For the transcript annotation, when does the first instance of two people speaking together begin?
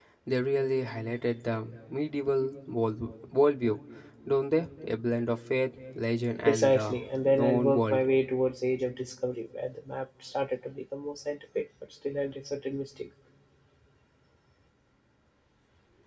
6.5 s

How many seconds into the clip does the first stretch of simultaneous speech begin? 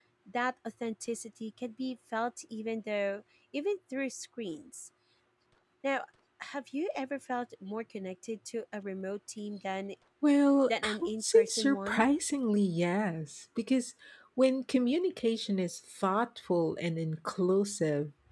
10.7 s

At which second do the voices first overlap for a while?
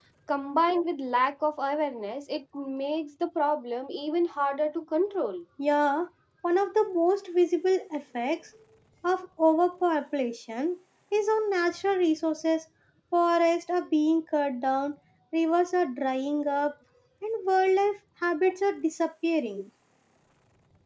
none

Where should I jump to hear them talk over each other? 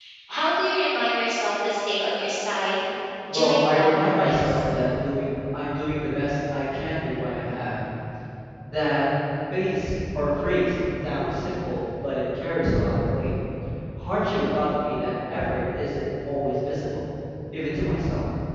3.3 s

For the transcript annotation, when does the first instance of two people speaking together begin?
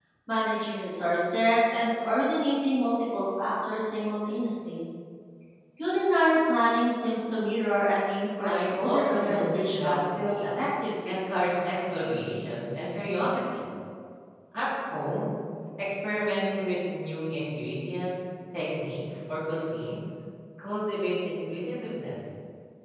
8.4 s

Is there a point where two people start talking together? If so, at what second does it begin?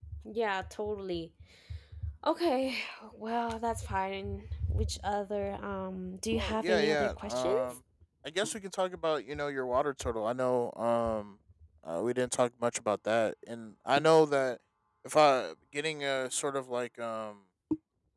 6.3 s

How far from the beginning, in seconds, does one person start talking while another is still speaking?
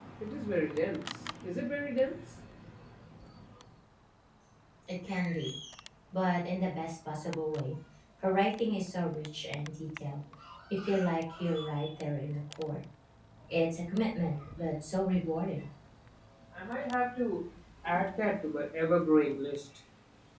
none

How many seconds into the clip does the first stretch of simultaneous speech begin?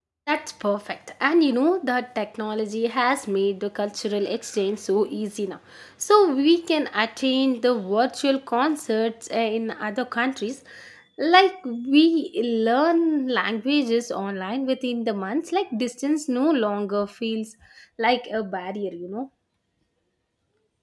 none

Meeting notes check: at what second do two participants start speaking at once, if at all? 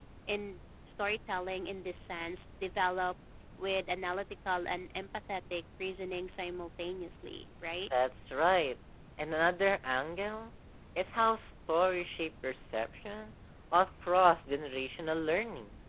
none

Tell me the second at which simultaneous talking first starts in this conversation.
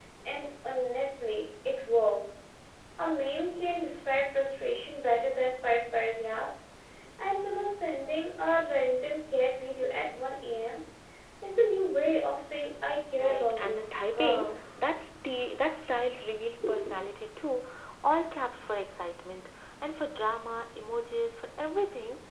13.2 s

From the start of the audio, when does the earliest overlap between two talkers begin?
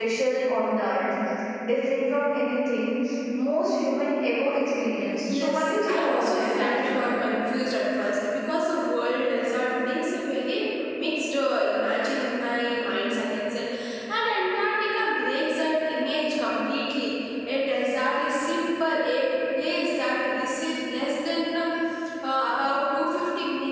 5.3 s

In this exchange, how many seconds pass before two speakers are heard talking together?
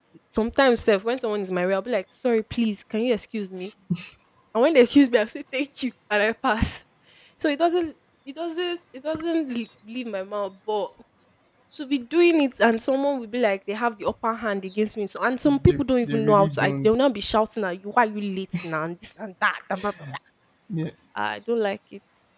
15.6 s

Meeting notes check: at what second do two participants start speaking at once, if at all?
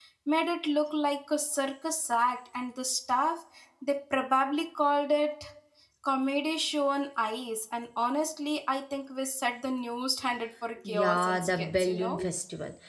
10.8 s

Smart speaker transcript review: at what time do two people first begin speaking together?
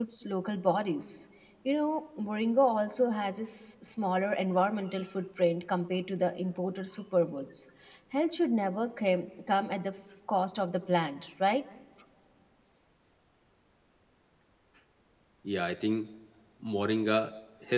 none

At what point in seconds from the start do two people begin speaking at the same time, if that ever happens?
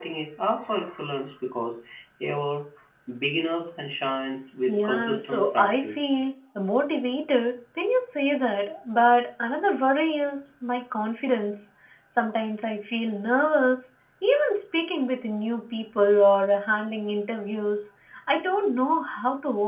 4.7 s

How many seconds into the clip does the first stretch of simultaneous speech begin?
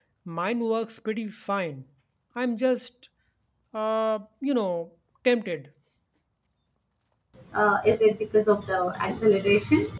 none

